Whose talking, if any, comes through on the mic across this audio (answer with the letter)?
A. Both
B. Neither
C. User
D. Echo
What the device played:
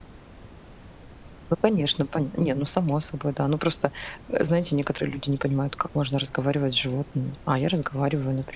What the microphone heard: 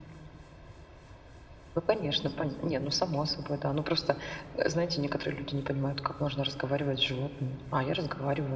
D